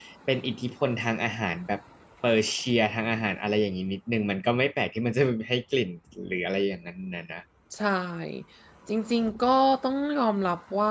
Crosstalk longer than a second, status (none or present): none